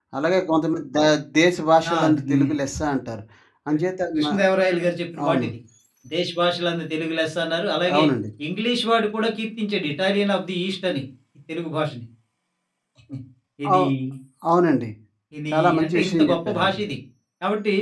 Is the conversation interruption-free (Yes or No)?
No